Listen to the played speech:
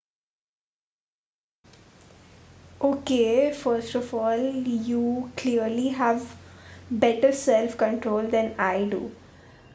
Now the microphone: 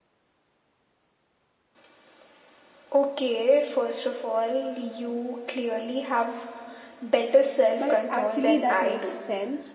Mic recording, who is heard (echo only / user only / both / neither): both